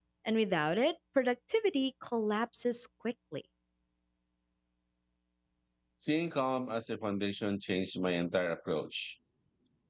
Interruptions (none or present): none